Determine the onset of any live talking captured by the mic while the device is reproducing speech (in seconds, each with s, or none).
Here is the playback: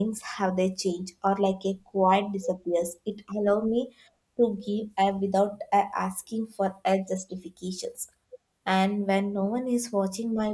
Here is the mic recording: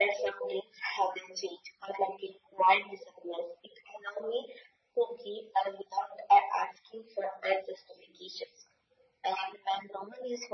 none